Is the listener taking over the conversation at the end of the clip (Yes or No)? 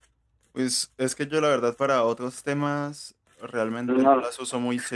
No